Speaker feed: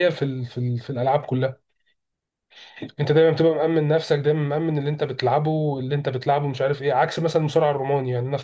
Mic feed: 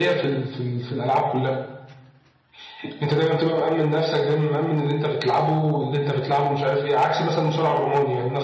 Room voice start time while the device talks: none

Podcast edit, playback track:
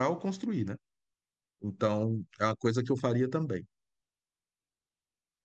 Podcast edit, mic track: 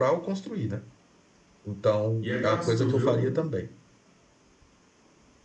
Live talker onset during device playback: 2 s

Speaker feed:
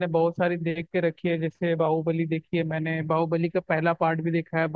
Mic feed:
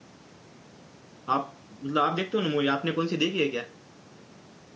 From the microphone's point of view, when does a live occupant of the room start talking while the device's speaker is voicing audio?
1 s

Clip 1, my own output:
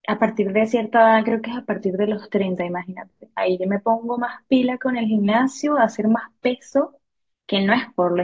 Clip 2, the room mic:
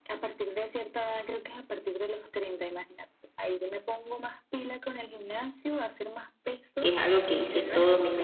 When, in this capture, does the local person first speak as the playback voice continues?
7 s

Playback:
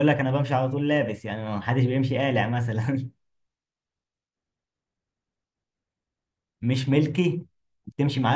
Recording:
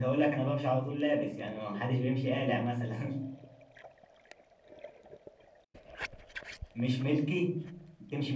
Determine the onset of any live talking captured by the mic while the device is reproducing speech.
none

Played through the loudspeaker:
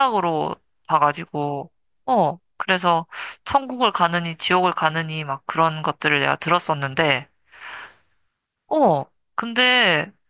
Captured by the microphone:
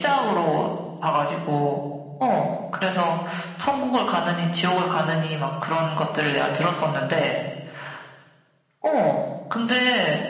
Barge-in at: none

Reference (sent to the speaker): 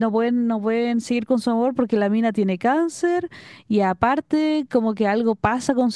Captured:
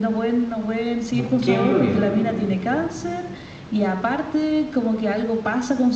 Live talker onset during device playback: 1 s

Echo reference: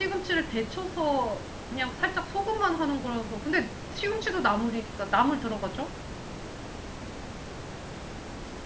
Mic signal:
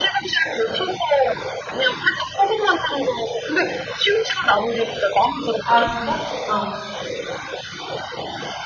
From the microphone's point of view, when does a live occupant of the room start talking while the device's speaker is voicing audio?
6 s

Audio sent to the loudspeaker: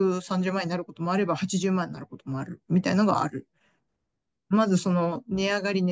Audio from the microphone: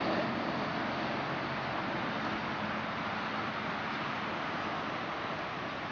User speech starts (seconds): none

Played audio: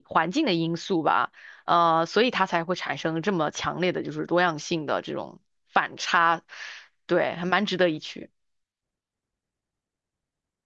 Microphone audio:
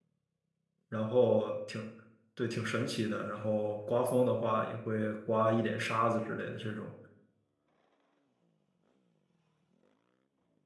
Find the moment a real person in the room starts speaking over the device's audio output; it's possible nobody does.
1 s

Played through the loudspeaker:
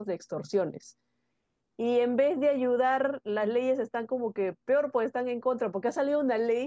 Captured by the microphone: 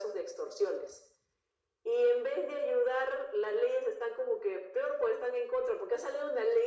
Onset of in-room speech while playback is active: none

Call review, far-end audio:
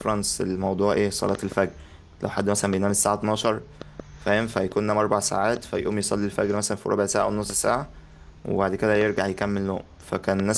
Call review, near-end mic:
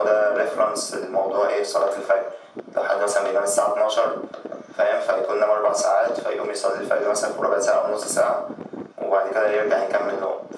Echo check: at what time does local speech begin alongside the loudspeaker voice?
none

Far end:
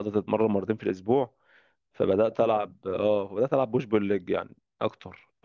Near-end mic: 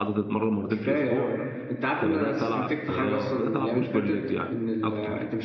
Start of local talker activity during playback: 1 s

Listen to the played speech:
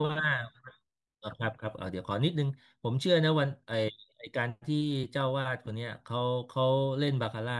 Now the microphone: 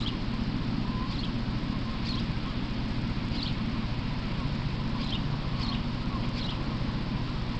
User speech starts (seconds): none

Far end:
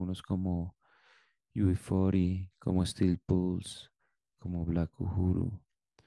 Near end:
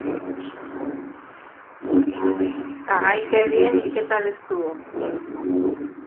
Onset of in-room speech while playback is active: 3 s

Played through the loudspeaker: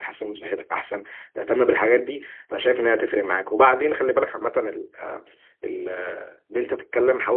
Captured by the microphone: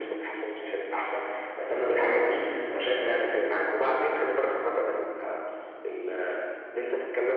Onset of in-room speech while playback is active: none

